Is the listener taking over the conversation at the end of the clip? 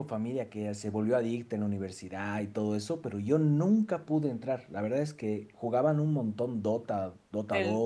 Yes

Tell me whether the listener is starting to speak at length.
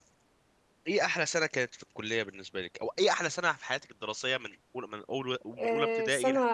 Yes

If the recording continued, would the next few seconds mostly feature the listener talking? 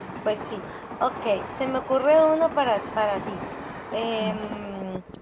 No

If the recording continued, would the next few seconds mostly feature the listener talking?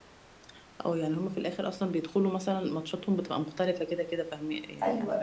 Yes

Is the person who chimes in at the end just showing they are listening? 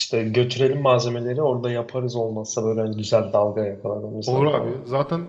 No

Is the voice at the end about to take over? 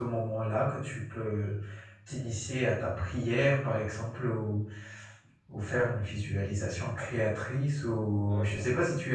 No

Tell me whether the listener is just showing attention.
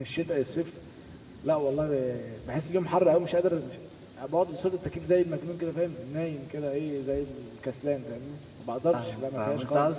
No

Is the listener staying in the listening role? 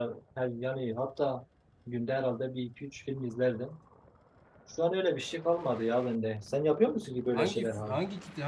No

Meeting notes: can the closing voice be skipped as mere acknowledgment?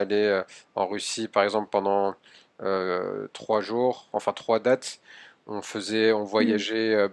Yes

